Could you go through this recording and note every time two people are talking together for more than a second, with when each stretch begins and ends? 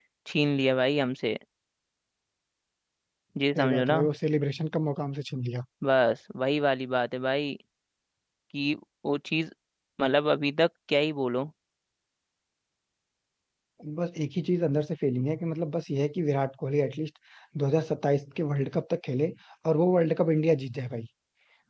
none

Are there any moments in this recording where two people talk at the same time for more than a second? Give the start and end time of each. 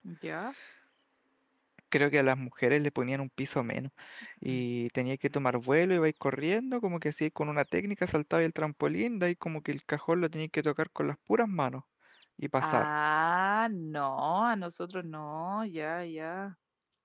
none

